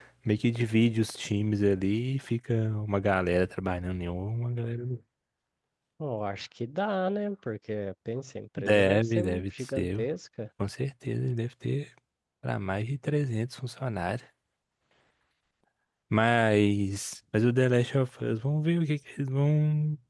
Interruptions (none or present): present